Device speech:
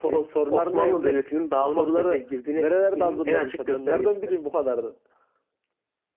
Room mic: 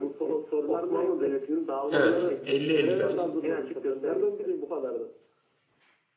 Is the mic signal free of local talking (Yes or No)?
No